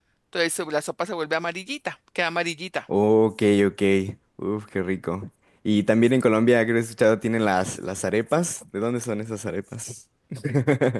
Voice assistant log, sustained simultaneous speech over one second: none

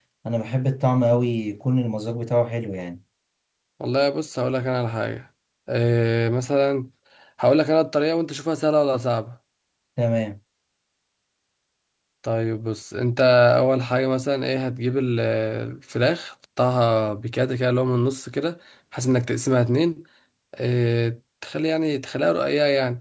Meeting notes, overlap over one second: none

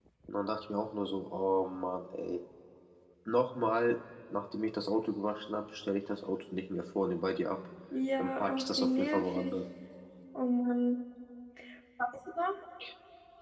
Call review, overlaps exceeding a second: present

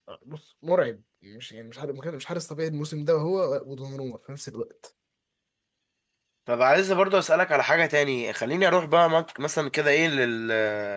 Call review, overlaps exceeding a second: none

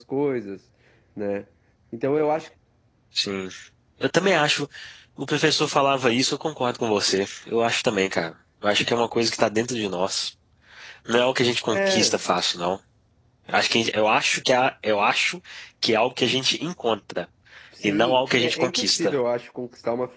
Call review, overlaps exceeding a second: present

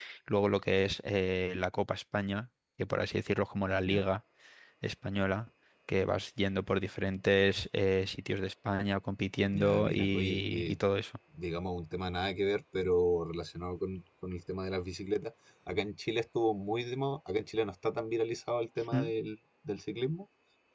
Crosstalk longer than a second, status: present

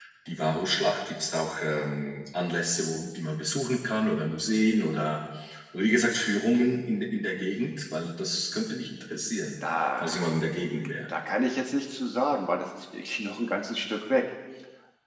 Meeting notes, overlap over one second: none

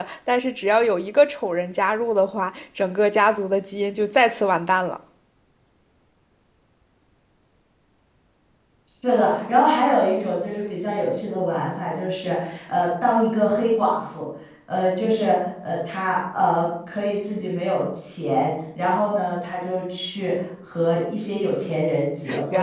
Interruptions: none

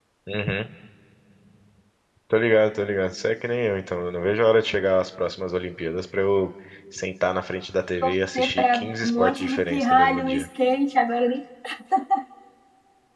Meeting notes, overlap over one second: present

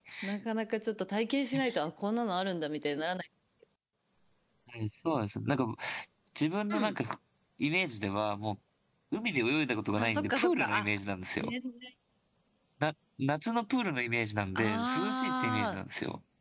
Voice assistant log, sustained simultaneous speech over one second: present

